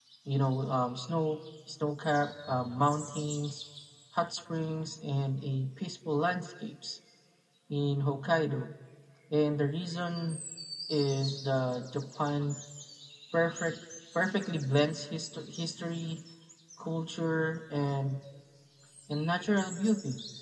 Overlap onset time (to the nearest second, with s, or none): none